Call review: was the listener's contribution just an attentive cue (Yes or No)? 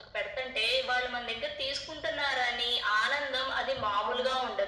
No